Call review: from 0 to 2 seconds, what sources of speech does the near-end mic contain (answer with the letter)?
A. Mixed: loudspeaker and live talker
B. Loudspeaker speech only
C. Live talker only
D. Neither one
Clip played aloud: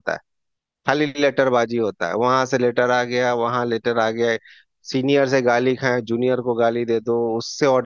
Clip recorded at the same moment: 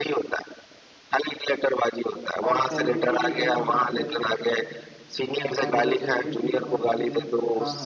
B